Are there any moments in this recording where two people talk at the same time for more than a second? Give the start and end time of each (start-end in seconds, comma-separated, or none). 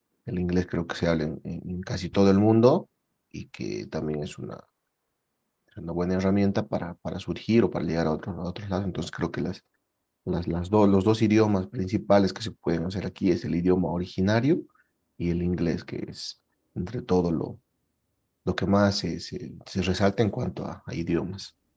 none